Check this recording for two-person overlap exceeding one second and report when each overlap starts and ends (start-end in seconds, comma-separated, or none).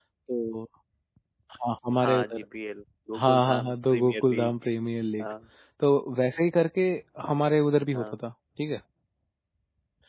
3.1-4.5